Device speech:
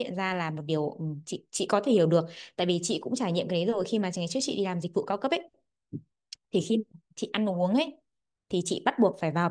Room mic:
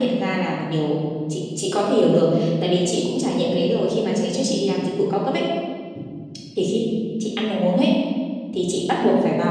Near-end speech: none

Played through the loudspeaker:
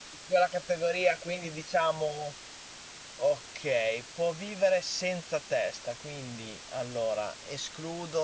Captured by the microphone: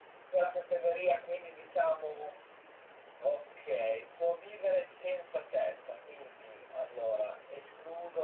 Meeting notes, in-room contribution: none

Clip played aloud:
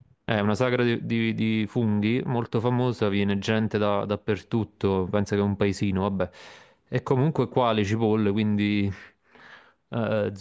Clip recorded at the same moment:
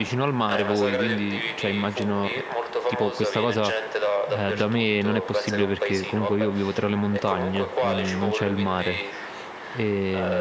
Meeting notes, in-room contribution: present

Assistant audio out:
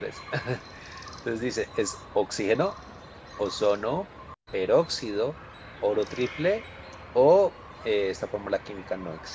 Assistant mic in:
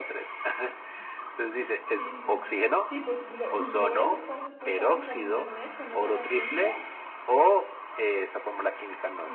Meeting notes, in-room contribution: present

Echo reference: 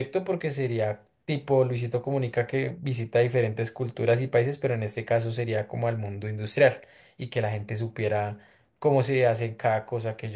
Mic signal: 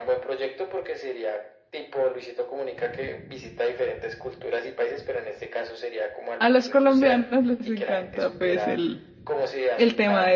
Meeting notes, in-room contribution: present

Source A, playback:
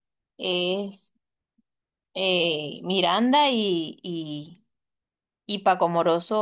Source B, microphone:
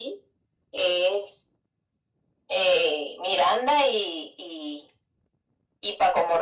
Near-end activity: none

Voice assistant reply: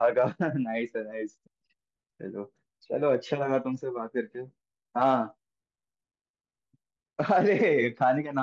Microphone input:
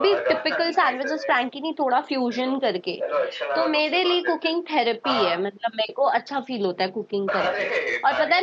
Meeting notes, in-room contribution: present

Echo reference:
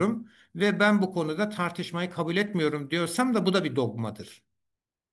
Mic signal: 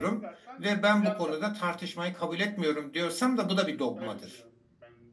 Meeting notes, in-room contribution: present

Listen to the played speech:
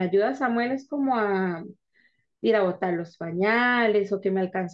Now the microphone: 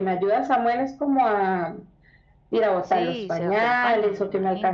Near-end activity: present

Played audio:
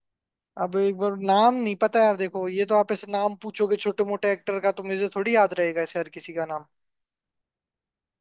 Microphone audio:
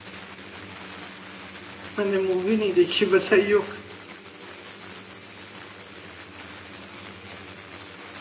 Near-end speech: present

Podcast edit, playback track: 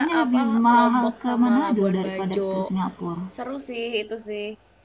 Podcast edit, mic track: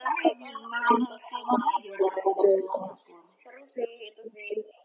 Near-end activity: none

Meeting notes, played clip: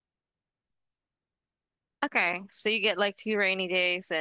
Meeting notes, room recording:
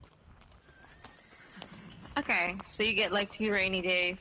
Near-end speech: none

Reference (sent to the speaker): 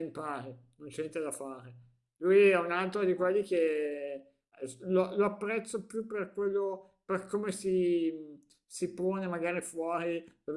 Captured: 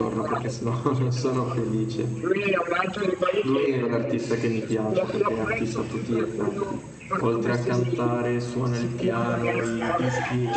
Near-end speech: present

